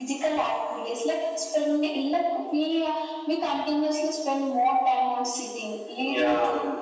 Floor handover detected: No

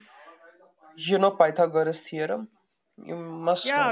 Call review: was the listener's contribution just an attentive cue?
No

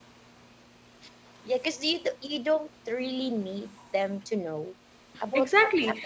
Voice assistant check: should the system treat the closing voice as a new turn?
Yes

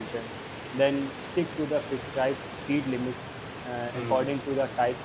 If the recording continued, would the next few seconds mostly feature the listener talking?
No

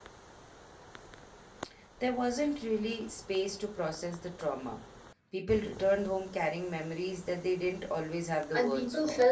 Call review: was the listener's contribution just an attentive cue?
No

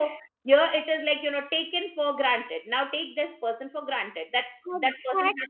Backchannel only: No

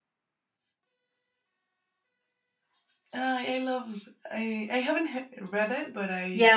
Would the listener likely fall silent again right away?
No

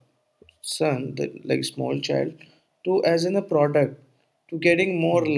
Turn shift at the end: No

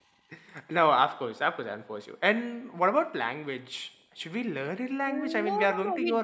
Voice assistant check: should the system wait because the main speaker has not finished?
No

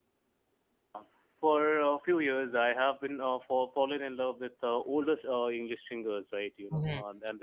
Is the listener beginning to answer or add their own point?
Yes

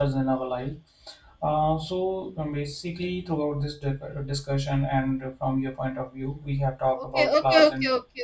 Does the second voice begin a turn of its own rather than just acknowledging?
Yes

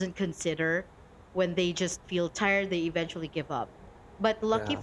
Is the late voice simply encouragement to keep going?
Yes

